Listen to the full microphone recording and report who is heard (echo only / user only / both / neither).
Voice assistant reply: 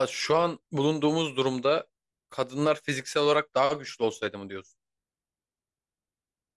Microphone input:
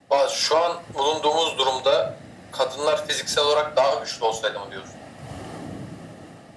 echo only